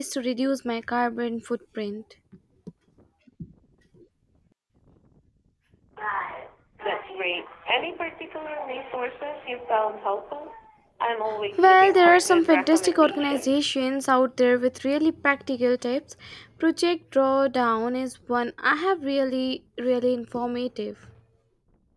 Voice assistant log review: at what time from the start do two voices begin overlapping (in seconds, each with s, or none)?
11.6 s